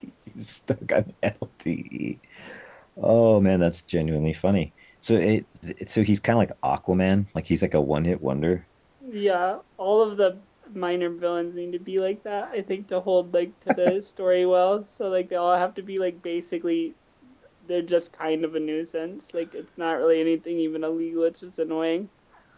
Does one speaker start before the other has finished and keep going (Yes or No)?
No